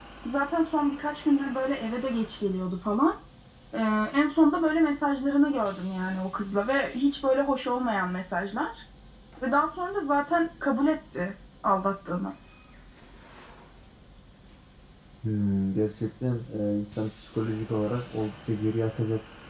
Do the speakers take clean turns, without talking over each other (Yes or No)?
Yes